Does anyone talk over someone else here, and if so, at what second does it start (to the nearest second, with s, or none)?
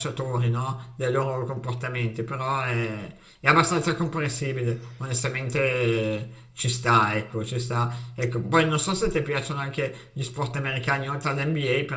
none